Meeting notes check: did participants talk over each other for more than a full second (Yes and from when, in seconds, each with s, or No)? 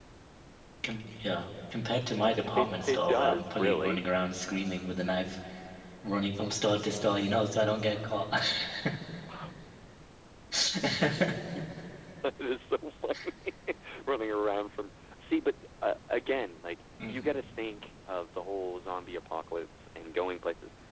Yes, from 2.6 s